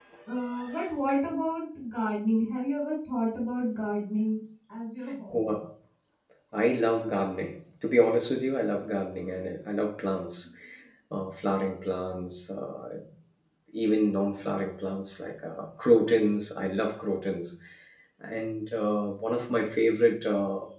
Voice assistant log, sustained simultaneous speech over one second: none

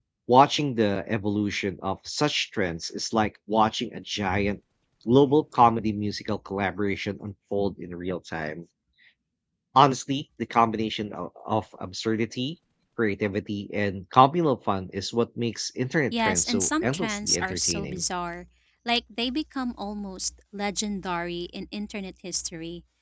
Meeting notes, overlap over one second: present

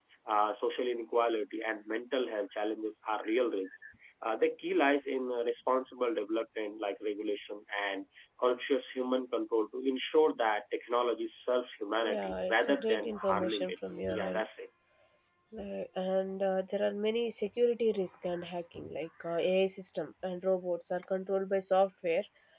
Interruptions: present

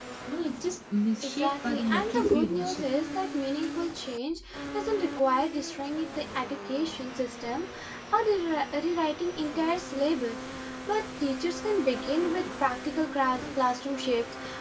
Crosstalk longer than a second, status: present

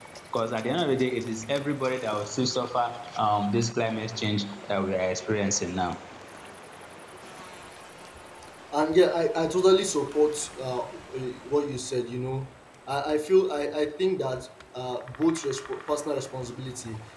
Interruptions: none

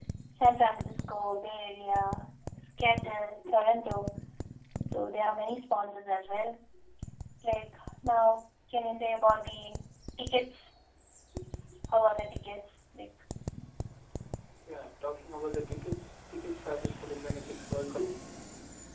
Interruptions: none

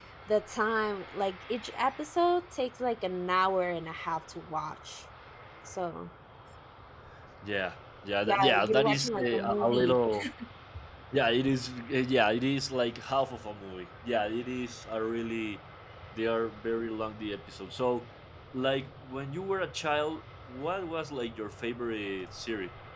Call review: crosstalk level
present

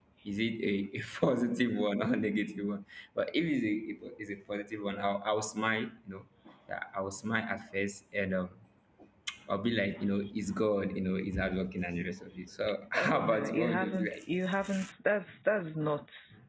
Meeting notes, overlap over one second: present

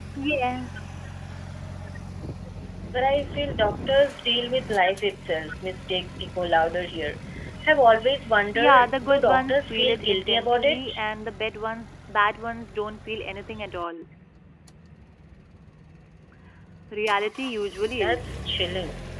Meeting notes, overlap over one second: present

